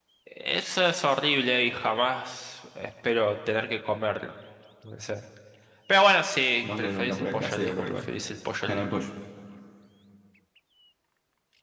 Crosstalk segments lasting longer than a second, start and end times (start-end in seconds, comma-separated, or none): 6.6-8.1